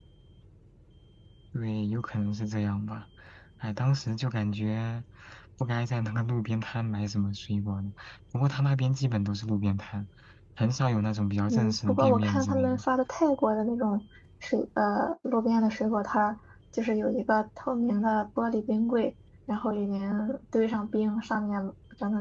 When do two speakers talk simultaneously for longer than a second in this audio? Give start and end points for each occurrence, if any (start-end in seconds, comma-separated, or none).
11.5-12.8